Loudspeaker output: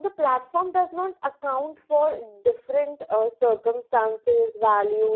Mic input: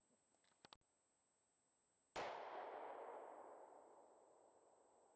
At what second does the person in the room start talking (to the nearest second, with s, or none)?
none